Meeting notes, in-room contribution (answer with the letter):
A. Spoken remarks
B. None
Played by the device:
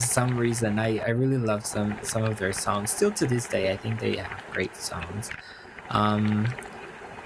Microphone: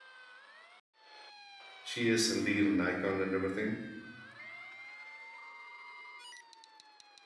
A